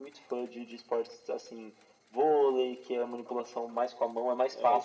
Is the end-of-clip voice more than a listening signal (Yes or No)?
Yes